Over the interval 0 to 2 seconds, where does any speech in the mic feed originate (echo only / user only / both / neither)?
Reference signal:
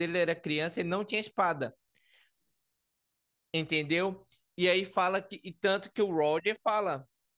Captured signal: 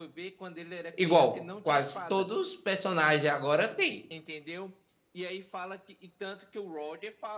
both